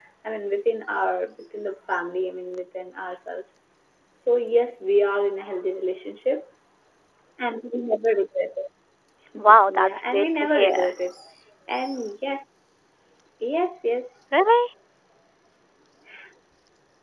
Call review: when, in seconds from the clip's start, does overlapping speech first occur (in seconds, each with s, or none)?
9.4 s